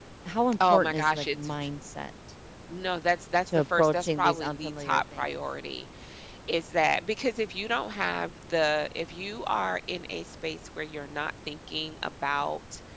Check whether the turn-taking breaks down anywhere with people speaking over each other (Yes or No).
Yes